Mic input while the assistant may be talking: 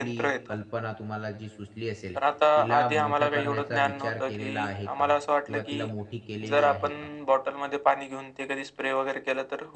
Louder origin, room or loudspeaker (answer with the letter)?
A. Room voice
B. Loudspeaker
B